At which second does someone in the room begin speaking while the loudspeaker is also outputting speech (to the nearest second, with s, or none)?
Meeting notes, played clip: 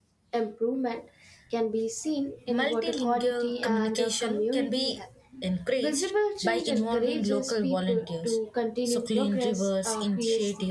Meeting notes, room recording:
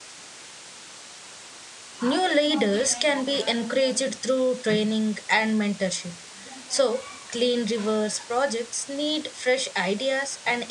2 s